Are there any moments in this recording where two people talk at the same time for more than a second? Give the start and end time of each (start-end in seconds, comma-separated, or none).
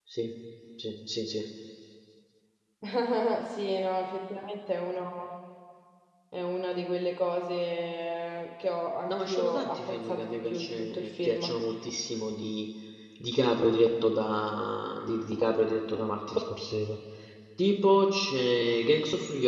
9.1-11.4